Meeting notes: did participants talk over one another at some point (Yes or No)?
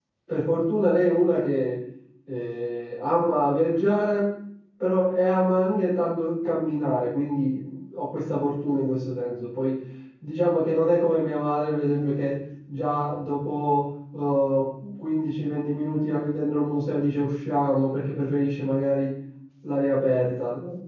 No